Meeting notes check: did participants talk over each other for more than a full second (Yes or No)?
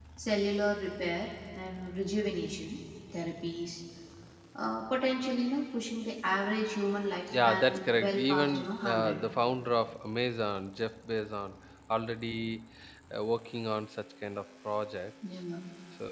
Yes